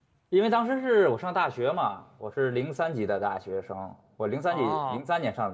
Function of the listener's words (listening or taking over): listening